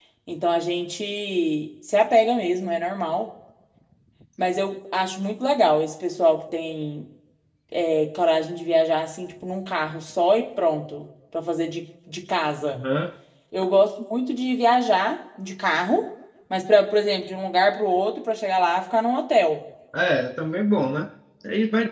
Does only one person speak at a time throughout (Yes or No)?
Yes